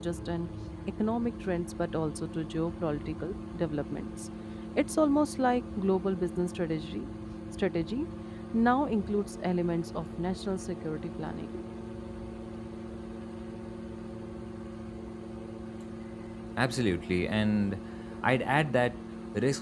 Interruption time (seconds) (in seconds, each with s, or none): none